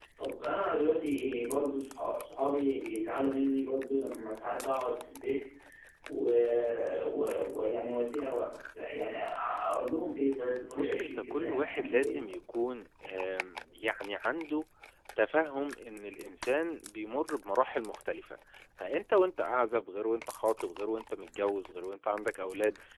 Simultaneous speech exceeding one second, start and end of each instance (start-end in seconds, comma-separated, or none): 10.8-12.2